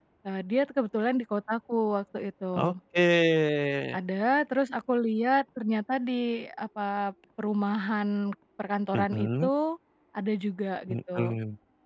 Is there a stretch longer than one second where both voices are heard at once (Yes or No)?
No